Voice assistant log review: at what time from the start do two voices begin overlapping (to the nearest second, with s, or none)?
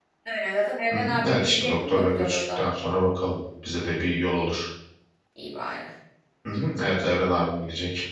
1 s